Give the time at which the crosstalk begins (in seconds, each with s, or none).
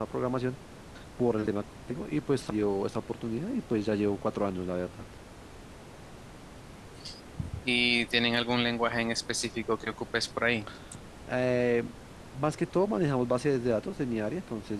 none